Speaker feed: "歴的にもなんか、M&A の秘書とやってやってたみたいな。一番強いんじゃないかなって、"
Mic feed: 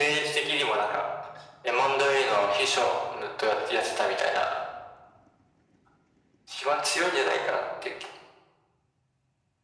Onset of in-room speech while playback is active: none

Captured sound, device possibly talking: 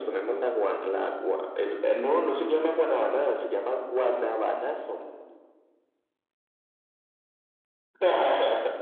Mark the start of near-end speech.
none

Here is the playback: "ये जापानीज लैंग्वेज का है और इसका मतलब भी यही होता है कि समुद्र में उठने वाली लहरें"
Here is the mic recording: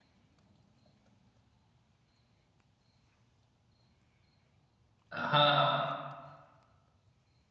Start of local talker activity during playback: 5.1 s

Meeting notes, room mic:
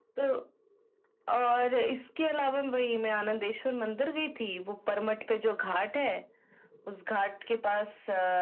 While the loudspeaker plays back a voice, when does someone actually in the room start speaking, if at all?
none

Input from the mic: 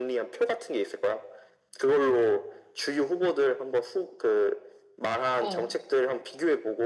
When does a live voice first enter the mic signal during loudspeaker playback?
5.4 s

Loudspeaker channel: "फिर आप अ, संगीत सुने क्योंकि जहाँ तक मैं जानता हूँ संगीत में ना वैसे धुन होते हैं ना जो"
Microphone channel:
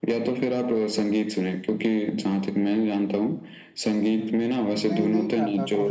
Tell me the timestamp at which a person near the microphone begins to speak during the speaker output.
4.0 s

